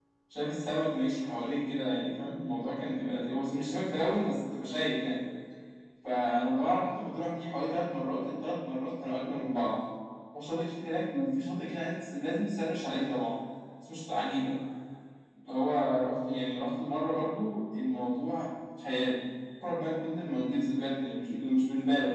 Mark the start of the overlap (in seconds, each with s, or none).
none